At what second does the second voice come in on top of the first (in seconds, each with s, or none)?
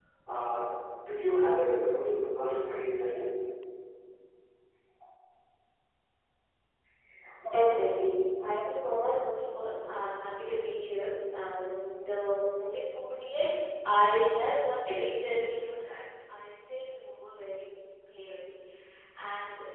none